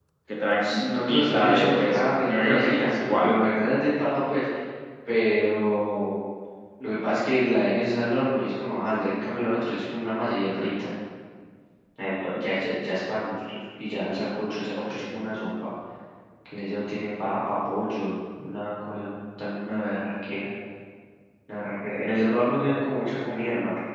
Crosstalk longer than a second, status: present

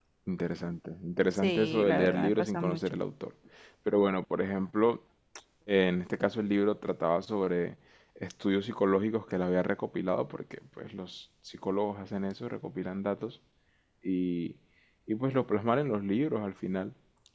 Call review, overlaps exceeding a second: present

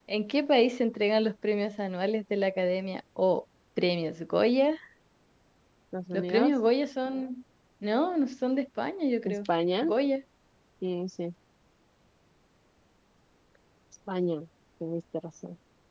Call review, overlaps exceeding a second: none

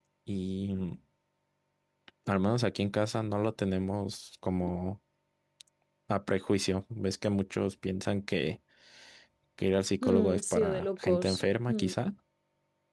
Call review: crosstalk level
present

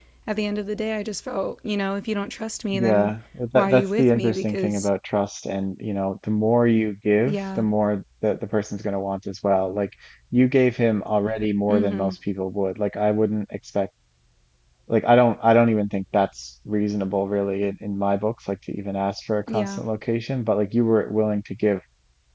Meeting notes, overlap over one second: present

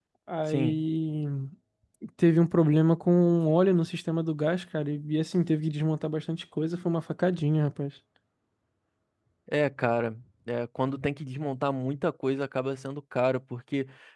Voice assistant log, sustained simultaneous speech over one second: none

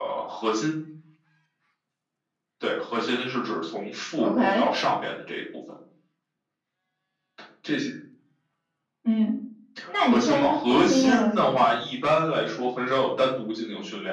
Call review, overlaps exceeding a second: present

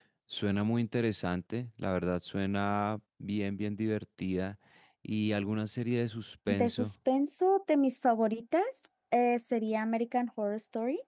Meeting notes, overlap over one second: none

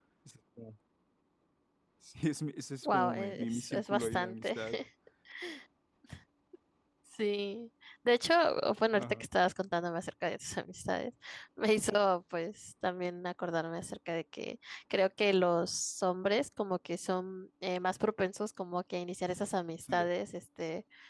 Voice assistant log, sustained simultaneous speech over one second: present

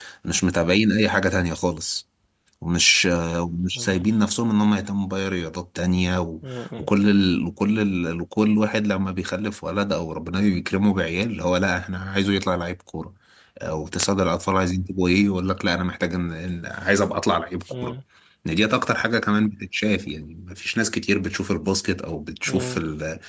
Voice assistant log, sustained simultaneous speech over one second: none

